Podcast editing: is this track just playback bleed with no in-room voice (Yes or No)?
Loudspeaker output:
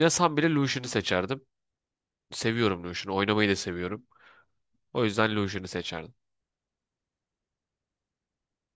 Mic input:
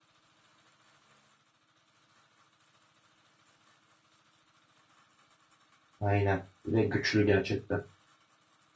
No